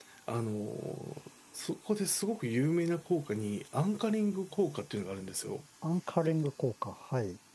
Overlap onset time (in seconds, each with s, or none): none